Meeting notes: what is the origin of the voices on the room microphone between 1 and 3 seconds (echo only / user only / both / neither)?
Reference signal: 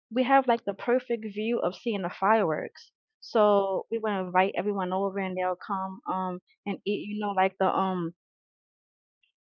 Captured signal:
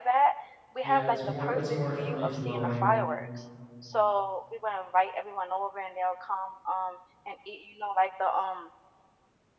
both